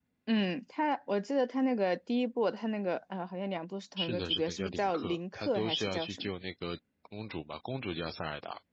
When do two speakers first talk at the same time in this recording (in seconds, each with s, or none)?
4.0 s